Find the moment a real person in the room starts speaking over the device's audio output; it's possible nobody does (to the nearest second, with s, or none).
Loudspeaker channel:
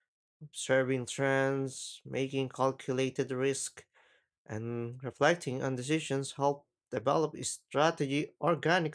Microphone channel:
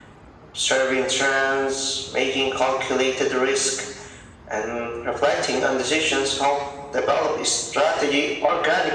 none